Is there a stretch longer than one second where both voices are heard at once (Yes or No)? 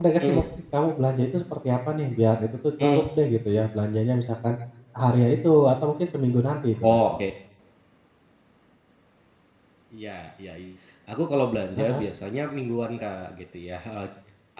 No